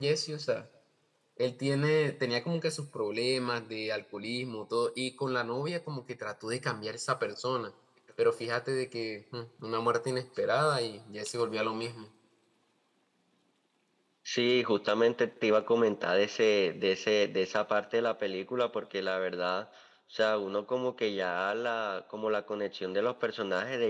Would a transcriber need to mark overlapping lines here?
No

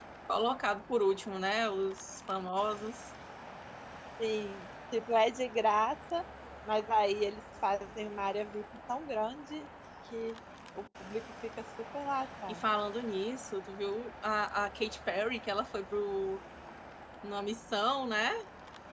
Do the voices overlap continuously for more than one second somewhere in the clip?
No

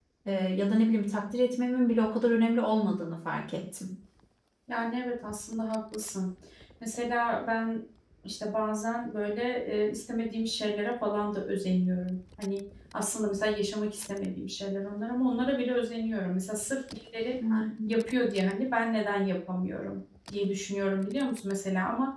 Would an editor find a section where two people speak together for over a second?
No

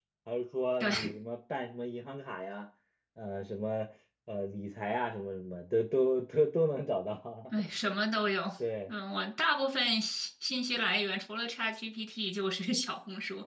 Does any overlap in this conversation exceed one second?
No

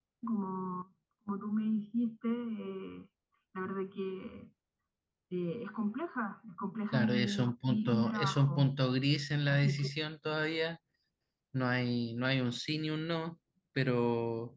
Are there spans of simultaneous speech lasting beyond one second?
Yes, from 6.9 s

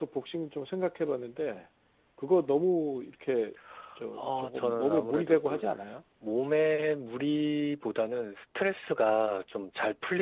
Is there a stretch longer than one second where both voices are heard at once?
Yes, from 4.2 s

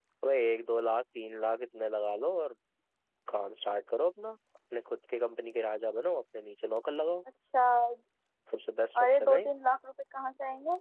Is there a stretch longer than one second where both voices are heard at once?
No

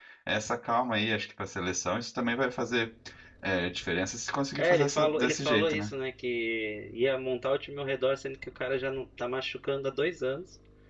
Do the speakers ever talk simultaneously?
Yes, from 4.6 s

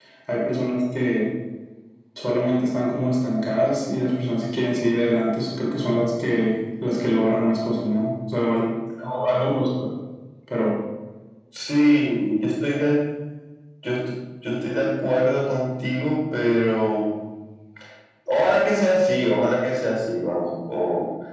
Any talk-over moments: No

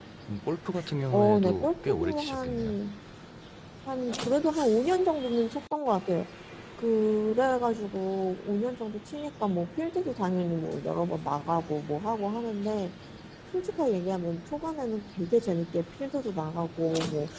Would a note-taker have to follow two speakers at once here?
Yes, from 1.1 s

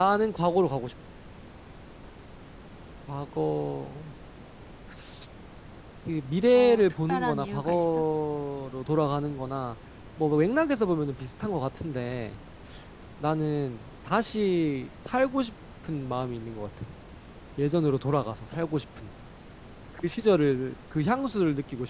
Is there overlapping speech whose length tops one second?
Yes, from 6.5 s

